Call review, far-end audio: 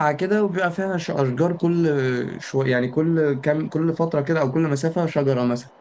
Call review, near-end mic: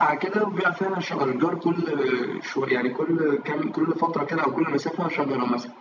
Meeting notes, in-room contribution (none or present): none